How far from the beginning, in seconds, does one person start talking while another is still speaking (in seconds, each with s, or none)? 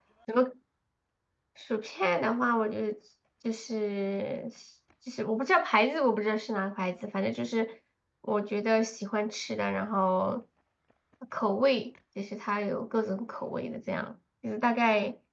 none